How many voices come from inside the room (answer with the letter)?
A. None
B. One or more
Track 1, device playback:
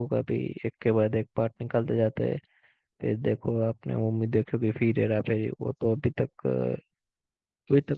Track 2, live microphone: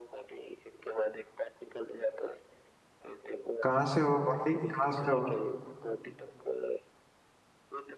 B